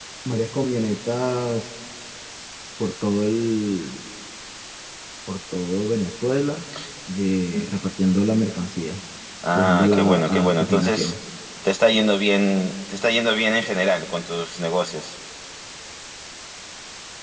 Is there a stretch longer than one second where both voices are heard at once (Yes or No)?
Yes